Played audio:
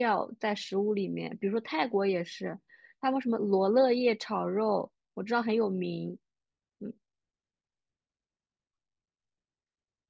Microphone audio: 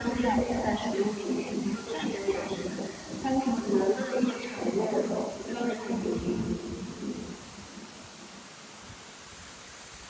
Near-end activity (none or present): none